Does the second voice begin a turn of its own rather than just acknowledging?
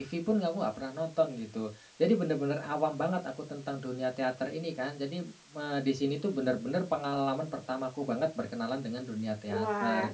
Yes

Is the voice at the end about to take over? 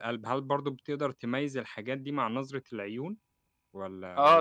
Yes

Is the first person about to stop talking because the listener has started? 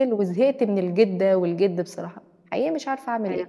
Yes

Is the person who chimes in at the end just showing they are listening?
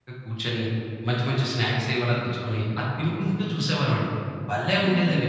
No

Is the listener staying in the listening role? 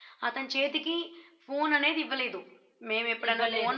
Yes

